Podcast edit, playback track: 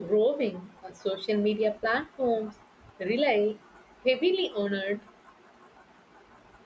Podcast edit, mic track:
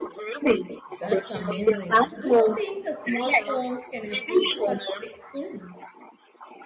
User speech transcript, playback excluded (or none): That's amazing. Do you think uh, small firms can afford such tech soon?